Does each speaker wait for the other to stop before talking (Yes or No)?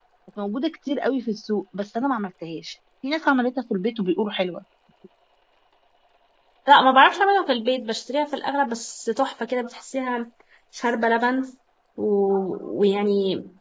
Yes